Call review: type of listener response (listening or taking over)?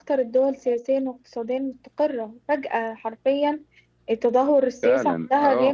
taking over